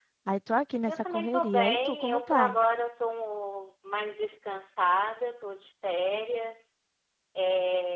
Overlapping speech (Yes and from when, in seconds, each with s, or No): Yes, from 0.9 s